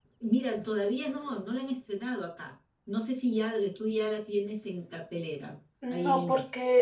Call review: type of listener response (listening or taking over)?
taking over